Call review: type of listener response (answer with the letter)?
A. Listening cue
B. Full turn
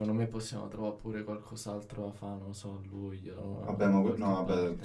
B